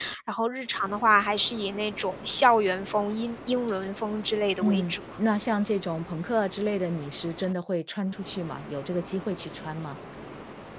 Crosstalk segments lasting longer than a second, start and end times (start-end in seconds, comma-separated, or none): none